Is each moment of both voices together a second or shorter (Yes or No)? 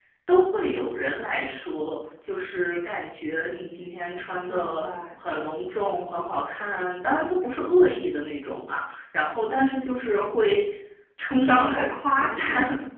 No